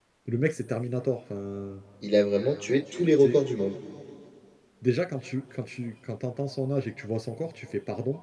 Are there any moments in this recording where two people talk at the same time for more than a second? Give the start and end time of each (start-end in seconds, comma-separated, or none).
none